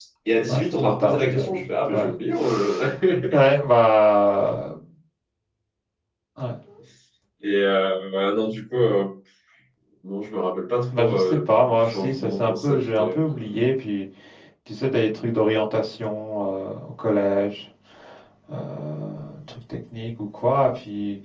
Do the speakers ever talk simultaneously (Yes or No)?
Yes